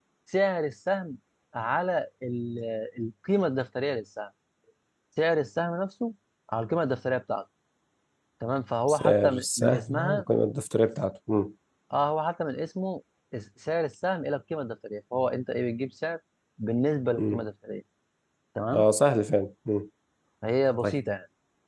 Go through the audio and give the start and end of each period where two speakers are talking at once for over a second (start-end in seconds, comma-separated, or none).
8.9-10.2